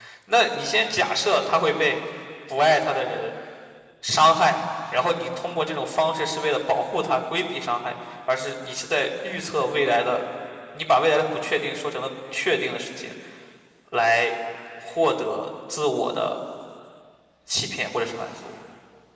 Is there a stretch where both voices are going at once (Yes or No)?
No